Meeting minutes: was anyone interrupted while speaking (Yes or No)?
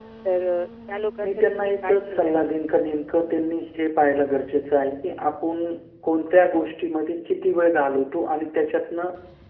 Yes